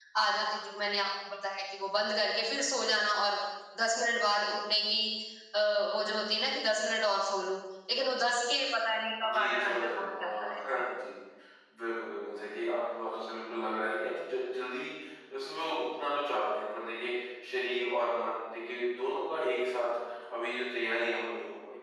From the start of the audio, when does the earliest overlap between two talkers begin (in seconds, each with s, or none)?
9.2 s